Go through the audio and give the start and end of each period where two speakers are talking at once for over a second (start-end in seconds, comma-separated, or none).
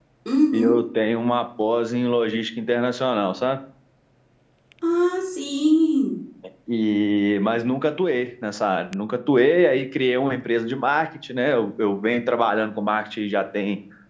none